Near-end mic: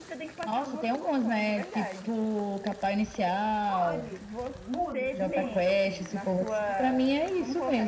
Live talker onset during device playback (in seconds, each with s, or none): 3.6 s